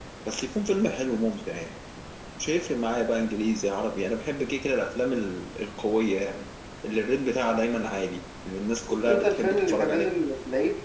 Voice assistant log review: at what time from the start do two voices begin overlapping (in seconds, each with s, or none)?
8.9 s